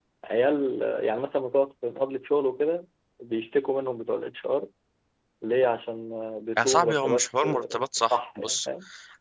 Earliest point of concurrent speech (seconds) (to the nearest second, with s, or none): 7 s